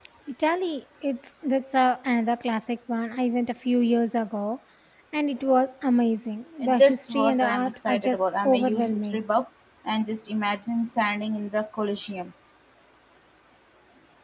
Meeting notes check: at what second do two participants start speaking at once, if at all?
6.6 s

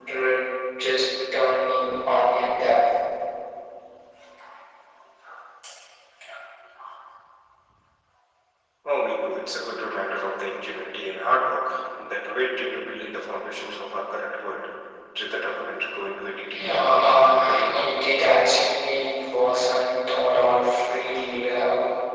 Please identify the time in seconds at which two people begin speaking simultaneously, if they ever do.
16.6 s

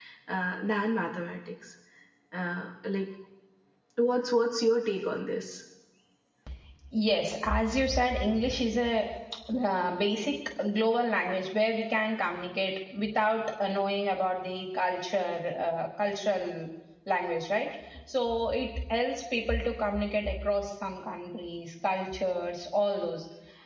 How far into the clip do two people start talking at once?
none

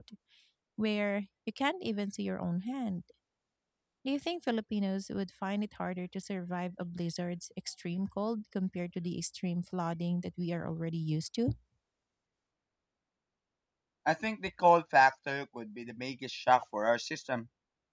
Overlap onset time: none

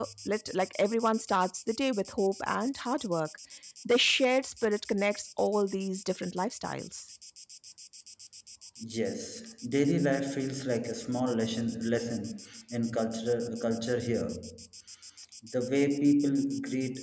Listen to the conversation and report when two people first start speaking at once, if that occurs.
none

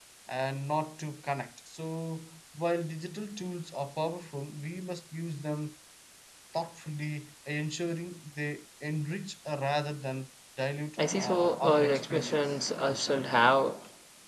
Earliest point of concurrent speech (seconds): 11.0 s

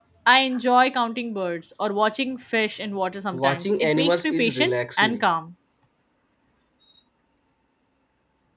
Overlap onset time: 3.3 s

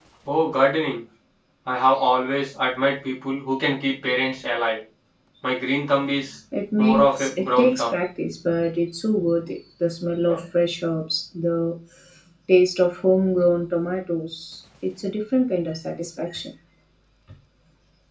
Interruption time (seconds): 6.8 s

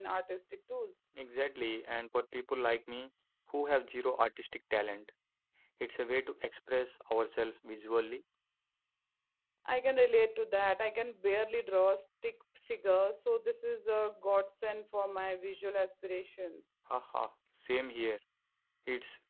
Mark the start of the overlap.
none

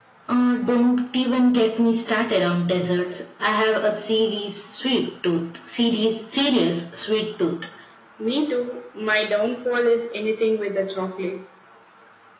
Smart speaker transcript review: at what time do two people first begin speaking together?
none

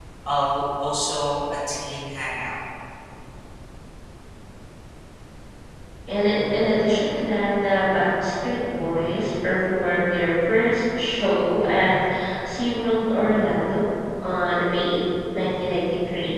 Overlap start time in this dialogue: none

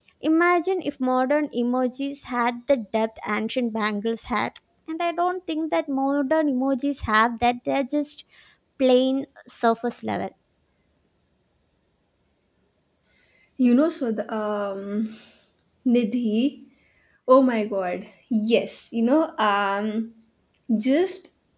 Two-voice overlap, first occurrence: none

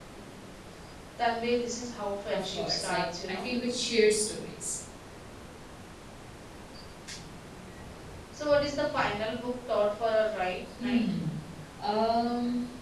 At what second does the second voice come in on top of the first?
2.3 s

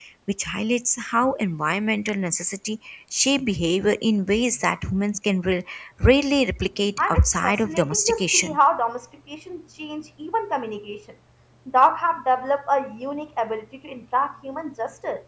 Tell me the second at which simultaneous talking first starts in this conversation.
7.0 s

